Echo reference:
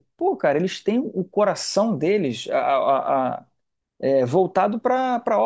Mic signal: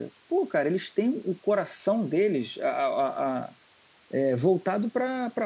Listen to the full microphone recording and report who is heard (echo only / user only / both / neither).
echo only